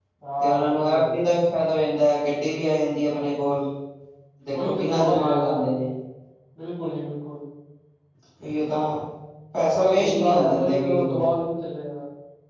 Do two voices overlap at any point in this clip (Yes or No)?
Yes